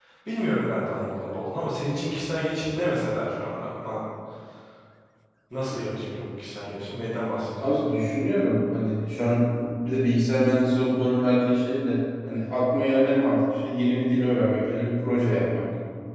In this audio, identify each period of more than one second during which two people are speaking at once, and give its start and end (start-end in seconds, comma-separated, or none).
none